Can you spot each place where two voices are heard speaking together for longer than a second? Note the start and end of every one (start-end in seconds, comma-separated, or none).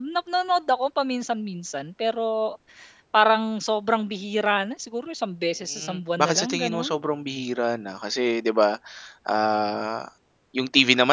5.8-7.0